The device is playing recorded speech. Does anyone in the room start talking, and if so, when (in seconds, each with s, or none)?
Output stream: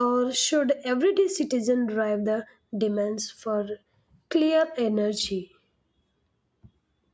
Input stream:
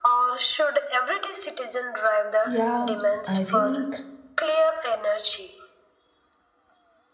2.5 s